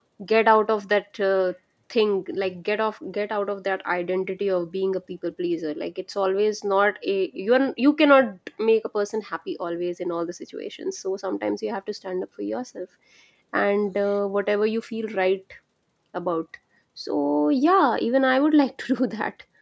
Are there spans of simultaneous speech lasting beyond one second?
No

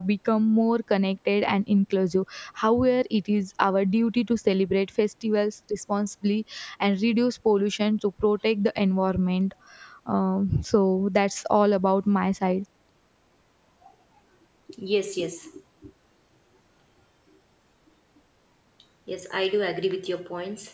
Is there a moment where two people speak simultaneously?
No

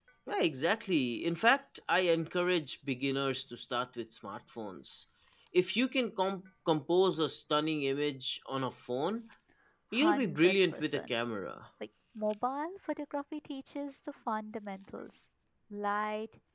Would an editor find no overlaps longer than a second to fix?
No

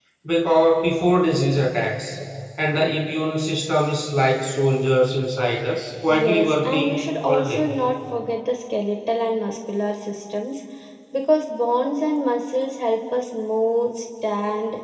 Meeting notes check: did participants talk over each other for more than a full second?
Yes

